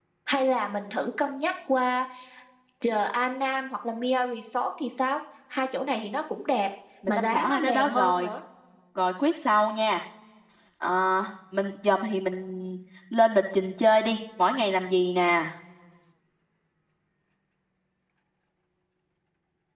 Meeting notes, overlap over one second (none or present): present